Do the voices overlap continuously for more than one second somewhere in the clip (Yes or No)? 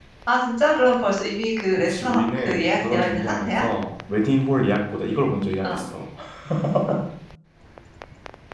Yes